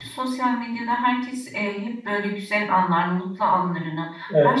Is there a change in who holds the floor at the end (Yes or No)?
No